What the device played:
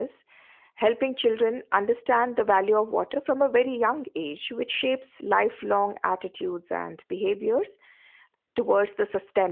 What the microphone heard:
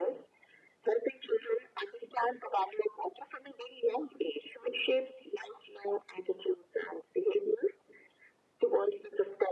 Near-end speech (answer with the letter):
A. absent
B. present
A